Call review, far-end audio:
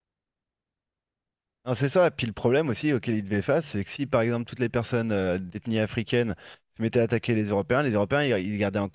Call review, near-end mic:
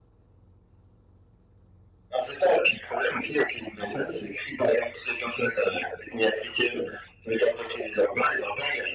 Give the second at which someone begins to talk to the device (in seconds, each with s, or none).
none